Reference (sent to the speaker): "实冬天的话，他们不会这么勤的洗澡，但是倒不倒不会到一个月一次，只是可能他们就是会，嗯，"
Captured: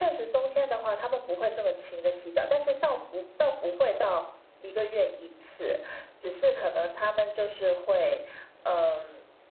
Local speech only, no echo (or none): none